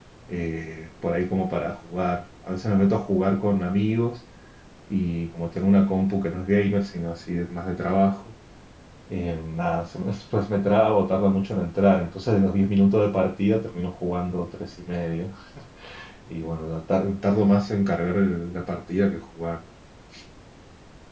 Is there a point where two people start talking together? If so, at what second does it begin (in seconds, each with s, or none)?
none